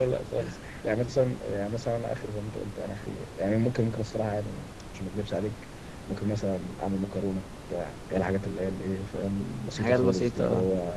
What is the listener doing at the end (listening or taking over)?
listening